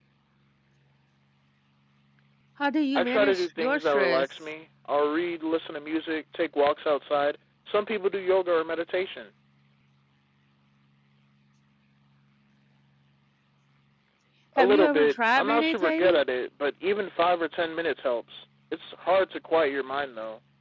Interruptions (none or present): present